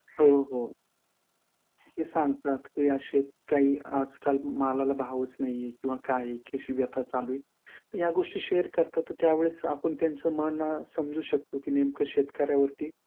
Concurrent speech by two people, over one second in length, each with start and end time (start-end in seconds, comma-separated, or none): none